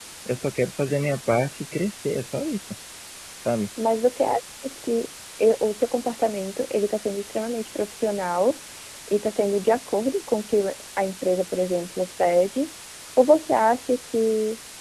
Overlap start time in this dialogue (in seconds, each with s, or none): none